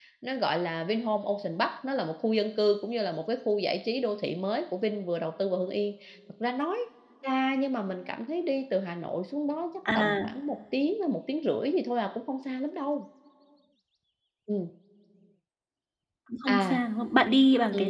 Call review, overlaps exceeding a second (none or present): none